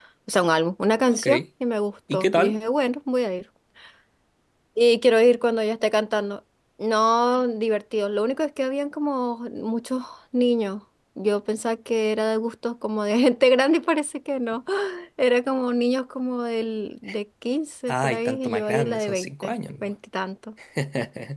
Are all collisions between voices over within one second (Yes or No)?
No